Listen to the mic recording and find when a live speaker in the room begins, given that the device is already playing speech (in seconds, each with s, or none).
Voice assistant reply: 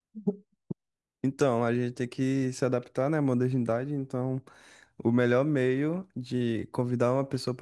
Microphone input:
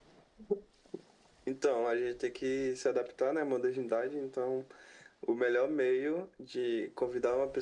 none